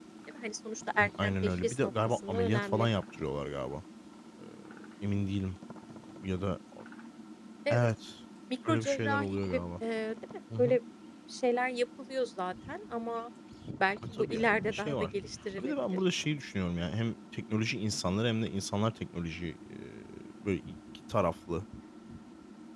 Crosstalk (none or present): present